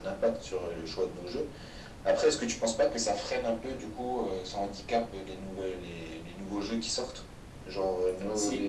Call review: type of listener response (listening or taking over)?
listening